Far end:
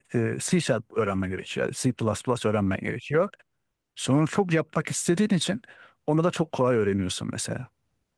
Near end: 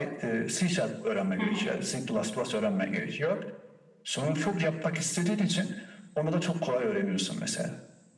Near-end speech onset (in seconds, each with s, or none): 1.4 s